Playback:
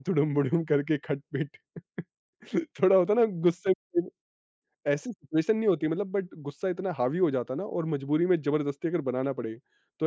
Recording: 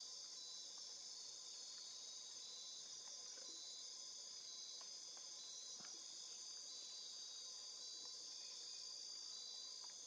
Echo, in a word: none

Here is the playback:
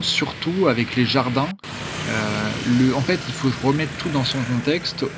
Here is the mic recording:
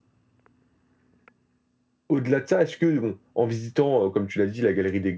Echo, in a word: none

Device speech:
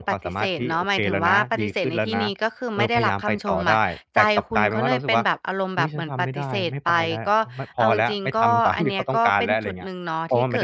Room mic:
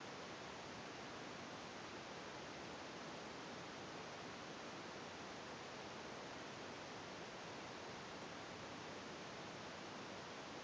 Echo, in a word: none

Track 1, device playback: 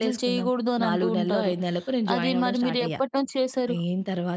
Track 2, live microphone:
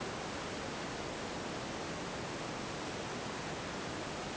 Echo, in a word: none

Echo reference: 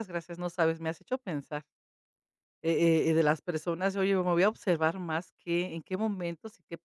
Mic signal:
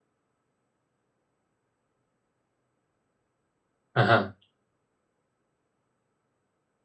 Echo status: none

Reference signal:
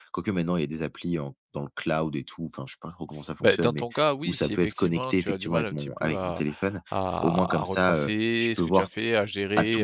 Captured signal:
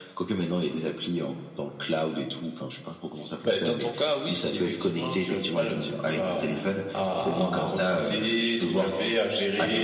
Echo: present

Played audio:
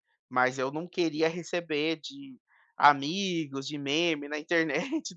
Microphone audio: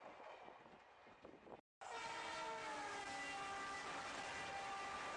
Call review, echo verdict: none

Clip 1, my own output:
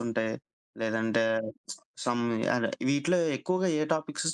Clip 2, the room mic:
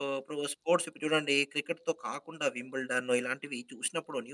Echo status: none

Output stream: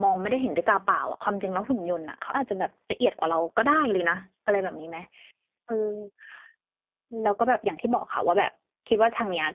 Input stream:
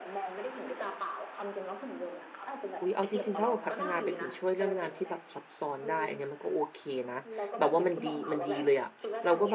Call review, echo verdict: present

